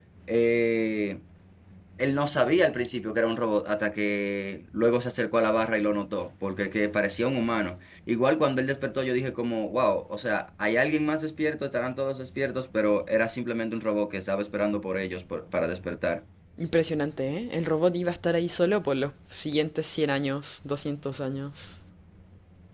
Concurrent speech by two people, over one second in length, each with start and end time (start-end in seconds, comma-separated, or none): none